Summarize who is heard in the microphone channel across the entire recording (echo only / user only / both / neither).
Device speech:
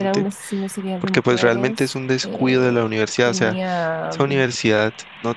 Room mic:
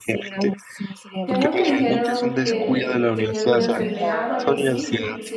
both